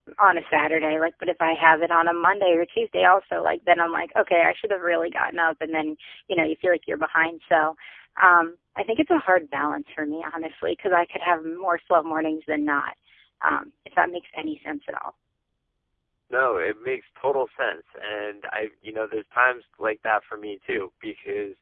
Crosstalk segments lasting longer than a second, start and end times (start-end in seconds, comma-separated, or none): none